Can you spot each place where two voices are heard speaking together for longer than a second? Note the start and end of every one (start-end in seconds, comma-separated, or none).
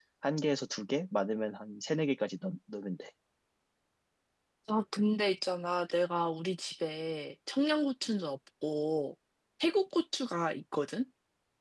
none